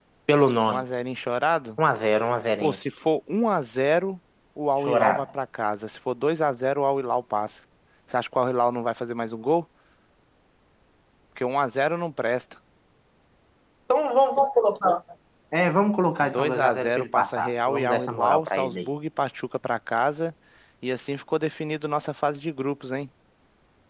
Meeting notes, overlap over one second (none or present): present